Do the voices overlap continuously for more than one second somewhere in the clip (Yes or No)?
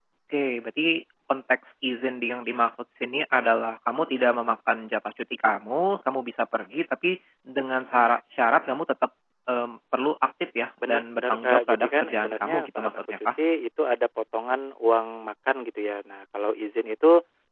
Yes